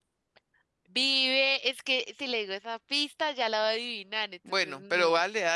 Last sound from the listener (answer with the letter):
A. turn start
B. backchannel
A